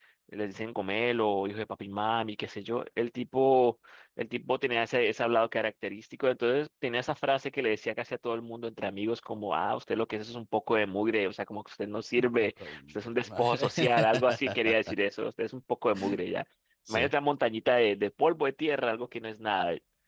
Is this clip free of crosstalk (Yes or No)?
No